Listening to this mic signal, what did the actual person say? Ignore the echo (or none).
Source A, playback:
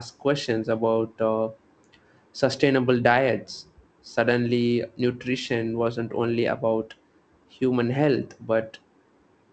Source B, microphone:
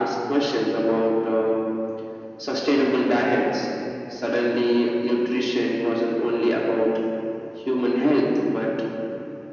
none